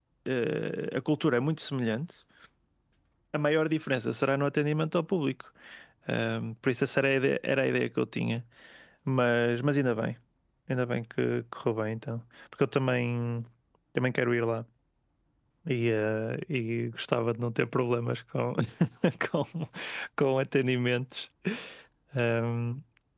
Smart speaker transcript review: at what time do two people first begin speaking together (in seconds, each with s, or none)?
none